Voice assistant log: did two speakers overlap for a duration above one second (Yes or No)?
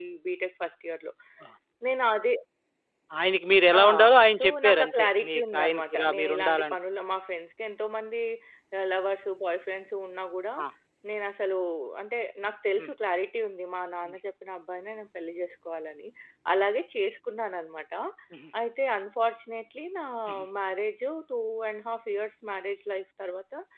Yes